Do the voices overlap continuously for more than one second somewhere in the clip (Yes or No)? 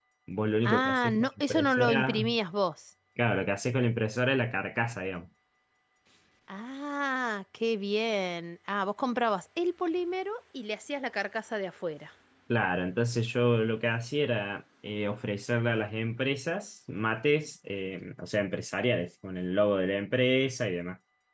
Yes